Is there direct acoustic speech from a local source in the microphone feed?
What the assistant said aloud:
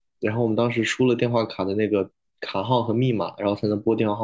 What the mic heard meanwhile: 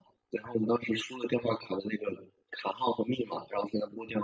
No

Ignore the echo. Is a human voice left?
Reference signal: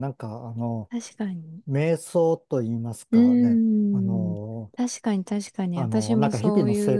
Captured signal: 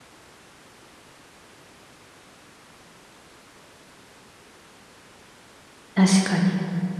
Yes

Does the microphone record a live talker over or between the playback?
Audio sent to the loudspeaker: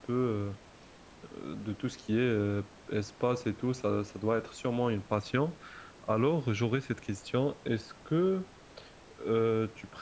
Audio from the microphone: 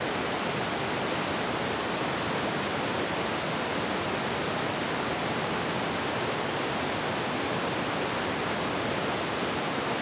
No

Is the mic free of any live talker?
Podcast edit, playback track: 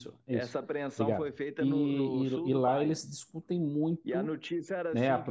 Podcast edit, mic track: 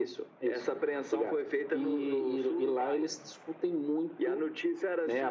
Yes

